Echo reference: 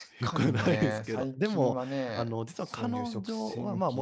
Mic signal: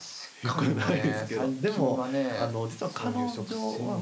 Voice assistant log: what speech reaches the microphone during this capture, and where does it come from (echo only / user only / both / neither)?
echo only